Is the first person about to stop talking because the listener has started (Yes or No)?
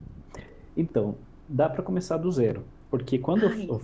No